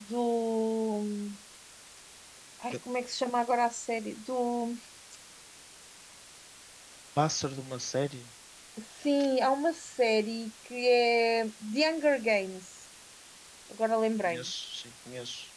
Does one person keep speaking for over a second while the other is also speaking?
No

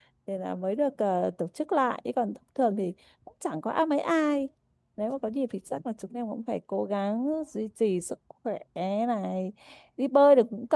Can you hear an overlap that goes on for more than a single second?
No

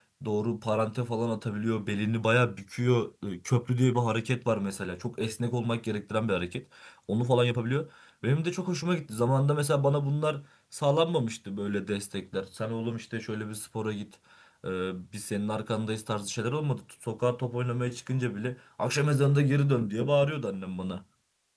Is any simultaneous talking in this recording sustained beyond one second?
No

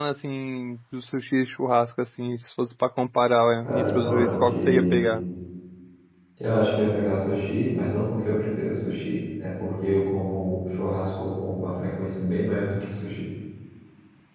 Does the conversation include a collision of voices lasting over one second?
Yes, from 3.6 s

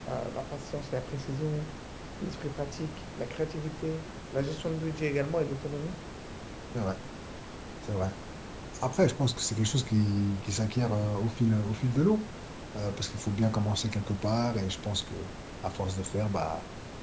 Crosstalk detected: No

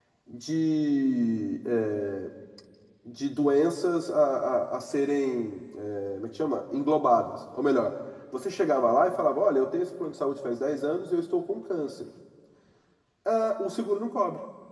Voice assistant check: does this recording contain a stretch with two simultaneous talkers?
No

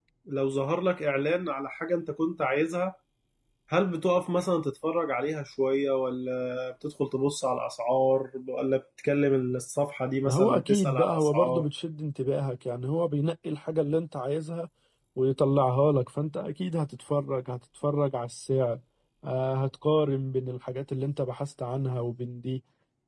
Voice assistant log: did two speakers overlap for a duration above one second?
Yes, from 10.2 s

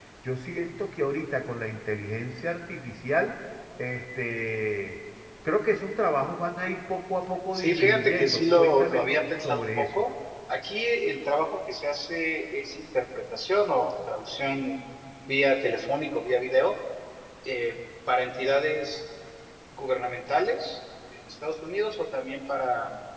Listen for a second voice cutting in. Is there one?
Yes, from 7.5 s

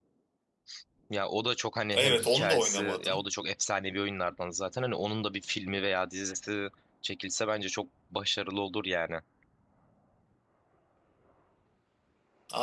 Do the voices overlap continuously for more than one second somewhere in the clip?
Yes, from 1.9 s

